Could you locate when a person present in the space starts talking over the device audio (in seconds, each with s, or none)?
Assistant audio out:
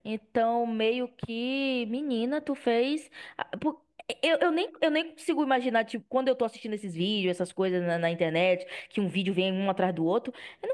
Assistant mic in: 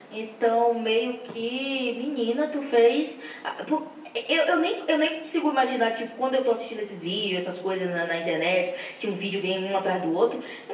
none